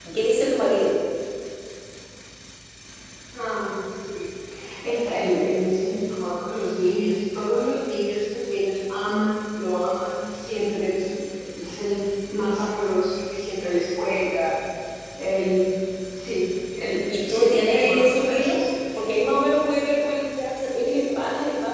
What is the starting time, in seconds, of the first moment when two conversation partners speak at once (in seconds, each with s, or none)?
17.1 s